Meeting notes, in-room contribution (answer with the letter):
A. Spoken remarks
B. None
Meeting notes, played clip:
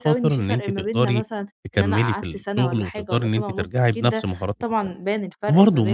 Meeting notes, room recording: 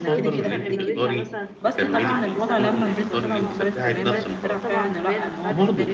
A